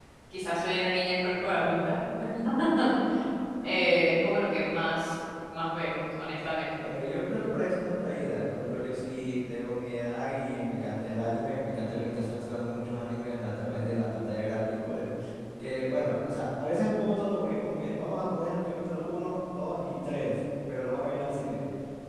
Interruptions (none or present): none